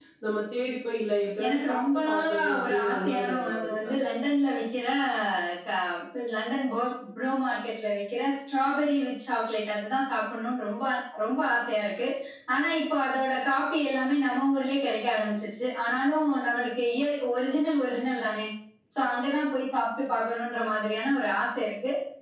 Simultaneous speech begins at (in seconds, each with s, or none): 1.4 s